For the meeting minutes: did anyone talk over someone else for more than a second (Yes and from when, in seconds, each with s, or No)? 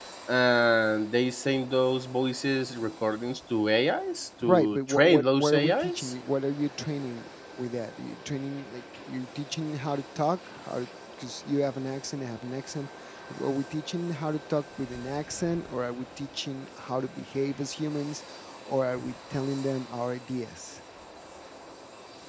Yes, from 4.4 s